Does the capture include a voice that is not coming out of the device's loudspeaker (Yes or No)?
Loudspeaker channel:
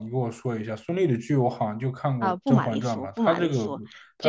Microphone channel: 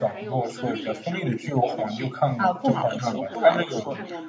Yes